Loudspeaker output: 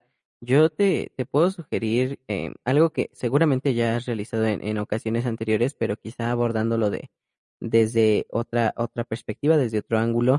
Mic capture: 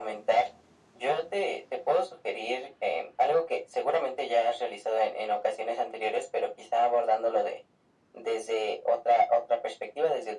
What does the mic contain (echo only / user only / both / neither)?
echo only